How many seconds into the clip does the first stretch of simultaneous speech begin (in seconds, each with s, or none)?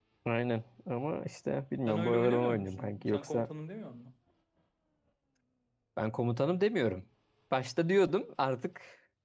1.9 s